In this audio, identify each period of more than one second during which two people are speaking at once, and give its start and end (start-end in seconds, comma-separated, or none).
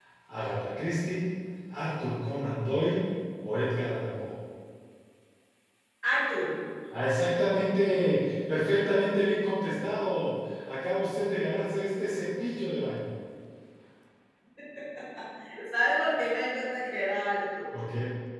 none